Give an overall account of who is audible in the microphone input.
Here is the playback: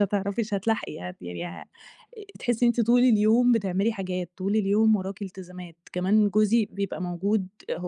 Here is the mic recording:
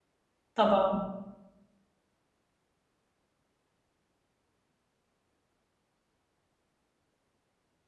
user only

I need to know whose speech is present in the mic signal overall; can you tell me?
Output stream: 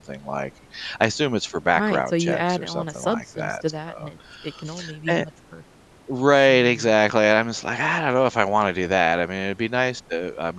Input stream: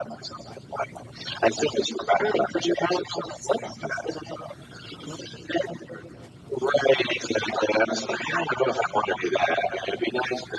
echo only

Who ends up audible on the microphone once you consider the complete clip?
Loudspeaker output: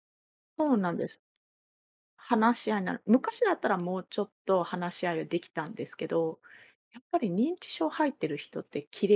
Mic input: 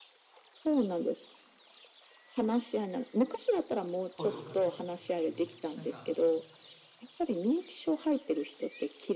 both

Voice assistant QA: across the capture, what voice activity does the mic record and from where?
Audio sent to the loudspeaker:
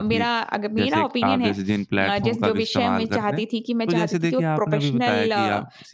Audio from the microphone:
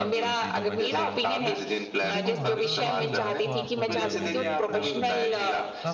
both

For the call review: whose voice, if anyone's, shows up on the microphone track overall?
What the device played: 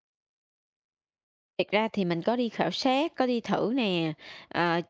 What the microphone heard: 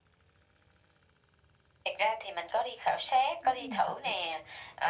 both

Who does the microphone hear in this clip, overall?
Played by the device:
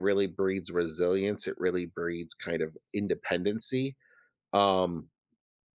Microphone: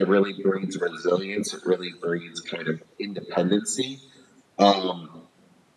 echo only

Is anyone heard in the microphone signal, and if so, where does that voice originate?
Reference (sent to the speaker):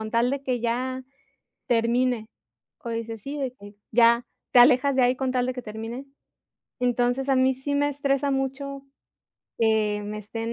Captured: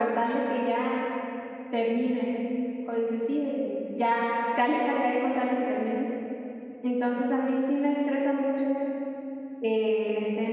echo only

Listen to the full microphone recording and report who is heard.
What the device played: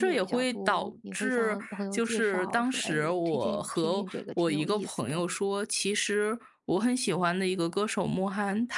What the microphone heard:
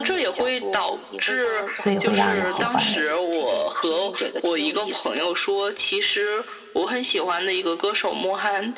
both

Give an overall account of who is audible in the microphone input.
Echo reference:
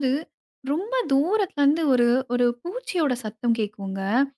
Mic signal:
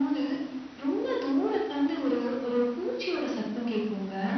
echo only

